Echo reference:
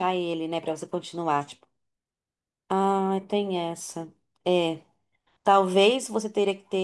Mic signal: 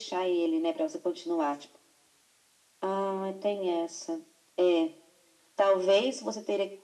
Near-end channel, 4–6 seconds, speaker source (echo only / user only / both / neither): echo only